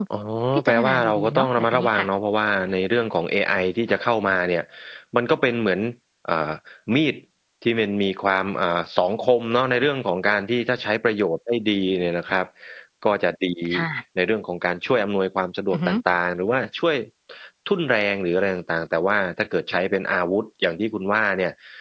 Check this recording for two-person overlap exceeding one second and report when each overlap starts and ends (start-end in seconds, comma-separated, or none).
0.6-2.1